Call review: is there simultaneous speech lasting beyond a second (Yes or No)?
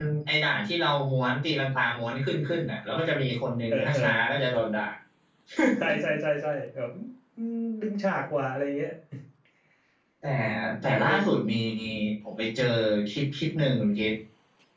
No